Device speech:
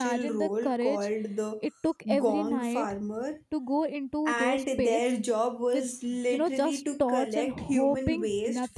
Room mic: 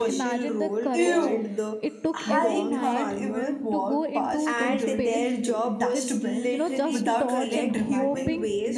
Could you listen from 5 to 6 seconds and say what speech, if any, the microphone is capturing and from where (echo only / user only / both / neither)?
both